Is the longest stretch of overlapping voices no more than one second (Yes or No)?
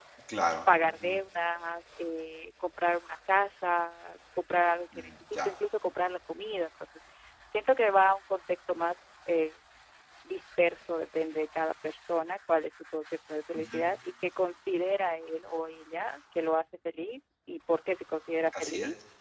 Yes